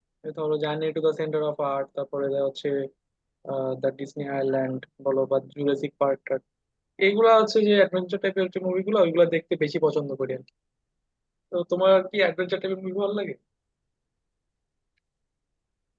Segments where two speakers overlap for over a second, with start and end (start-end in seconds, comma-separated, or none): none